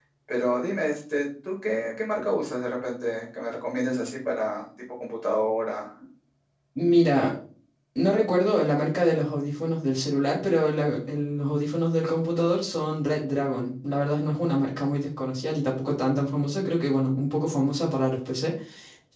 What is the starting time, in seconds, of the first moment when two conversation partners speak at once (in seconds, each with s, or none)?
none